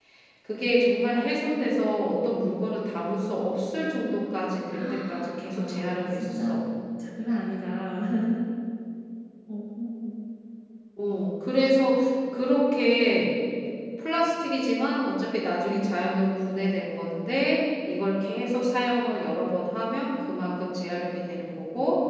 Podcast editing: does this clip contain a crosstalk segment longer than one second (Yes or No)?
Yes